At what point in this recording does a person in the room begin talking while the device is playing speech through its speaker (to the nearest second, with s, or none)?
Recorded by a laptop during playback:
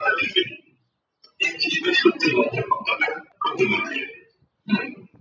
none